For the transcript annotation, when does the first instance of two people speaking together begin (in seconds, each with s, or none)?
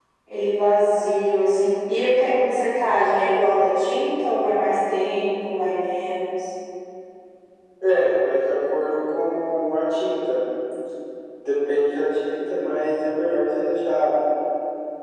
none